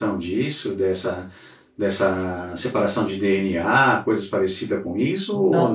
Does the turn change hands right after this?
Yes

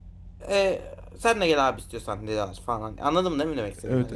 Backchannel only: No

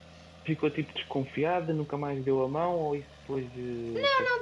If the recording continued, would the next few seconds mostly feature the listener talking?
Yes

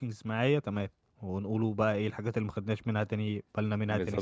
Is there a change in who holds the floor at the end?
Yes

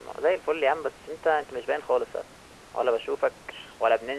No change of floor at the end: Yes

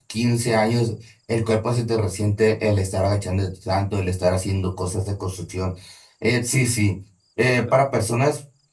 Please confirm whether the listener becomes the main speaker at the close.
No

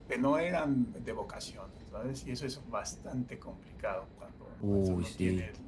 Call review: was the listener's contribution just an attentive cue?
Yes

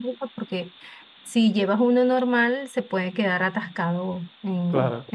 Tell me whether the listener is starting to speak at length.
No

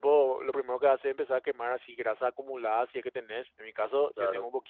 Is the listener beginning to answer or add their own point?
No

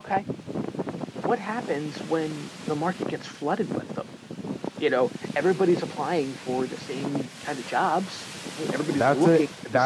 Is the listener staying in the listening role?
No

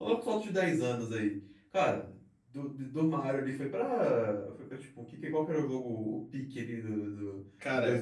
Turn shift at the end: No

